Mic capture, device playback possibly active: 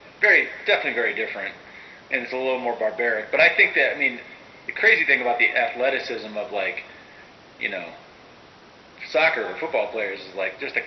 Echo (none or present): present